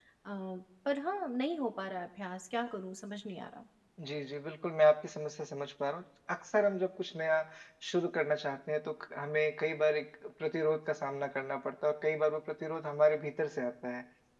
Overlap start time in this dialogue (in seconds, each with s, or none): none